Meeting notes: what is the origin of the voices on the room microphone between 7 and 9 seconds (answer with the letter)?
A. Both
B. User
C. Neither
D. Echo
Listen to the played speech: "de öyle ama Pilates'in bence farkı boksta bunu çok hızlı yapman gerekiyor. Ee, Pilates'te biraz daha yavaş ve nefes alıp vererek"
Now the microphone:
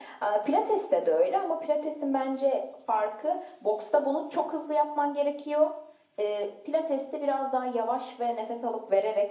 D